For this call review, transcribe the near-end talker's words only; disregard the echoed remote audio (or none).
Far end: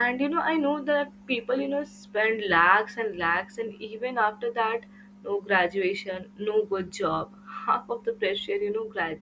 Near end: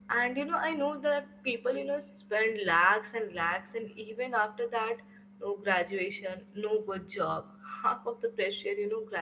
none